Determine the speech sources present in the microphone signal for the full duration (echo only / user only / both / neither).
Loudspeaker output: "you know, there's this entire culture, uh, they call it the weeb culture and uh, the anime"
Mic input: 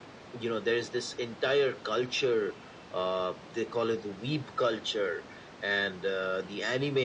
echo only